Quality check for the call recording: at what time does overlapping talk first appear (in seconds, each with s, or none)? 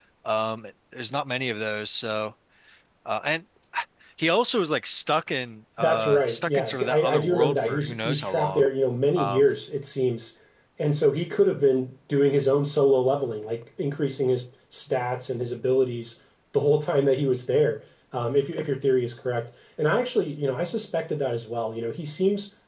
5.8 s